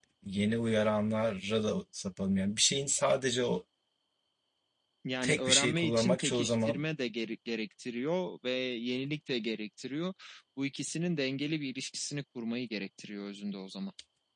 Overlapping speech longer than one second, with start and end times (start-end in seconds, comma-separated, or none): 5.2-6.8